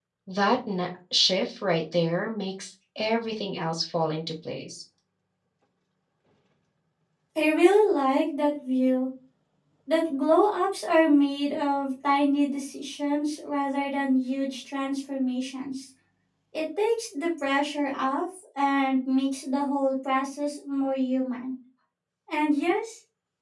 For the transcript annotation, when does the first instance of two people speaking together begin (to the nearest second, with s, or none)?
none